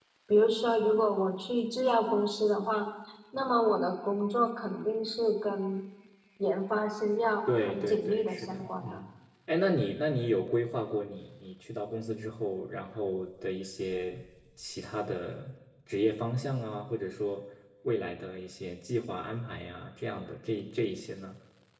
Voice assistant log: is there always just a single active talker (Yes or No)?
No